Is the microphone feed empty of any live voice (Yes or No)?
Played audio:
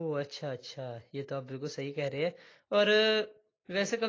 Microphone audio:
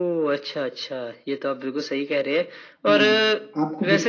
No